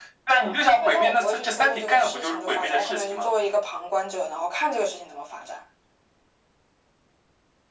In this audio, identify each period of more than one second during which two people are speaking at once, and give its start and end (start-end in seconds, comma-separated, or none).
0.8-3.3